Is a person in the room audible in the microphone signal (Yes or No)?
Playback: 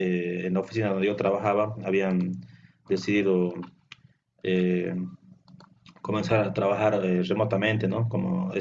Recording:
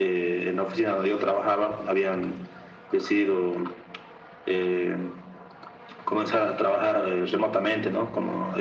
No